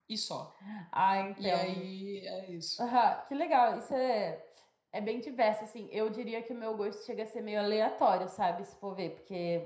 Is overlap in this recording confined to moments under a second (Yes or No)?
Yes